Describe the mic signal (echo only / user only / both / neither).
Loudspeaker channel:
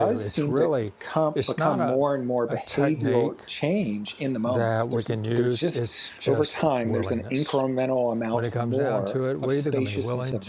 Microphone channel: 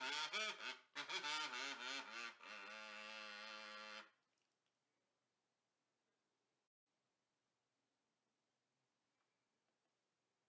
neither